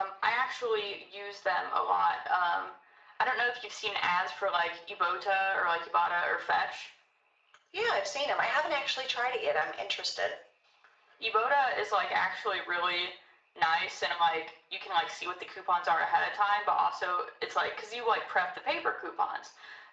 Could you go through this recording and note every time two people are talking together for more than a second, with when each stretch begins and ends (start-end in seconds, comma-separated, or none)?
none